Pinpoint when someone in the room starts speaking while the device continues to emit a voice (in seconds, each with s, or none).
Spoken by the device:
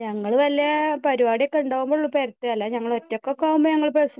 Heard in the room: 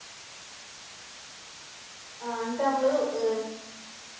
2.2 s